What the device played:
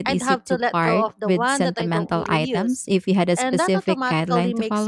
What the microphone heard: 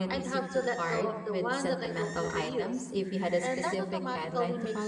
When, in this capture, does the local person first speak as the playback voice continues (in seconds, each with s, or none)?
none